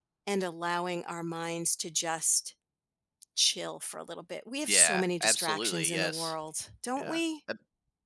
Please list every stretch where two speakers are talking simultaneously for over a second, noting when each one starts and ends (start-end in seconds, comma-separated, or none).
4.7-6.3